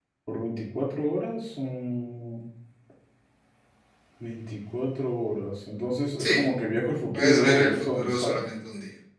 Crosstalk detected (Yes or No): Yes